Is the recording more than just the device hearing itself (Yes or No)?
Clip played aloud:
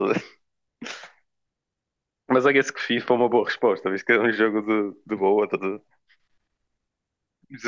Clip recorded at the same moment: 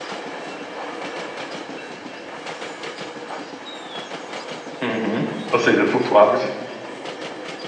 Yes